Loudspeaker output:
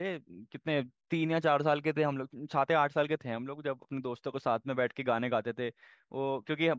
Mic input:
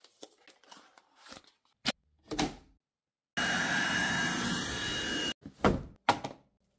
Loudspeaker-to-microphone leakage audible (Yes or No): No